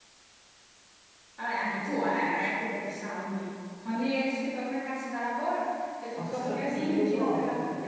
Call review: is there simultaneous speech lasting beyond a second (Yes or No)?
Yes